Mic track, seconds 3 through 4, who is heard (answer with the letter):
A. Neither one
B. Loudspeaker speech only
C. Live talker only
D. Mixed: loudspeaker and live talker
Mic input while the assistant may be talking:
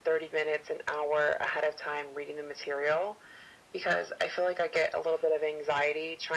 B